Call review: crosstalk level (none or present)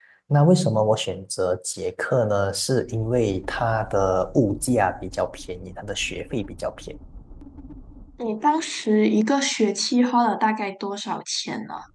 none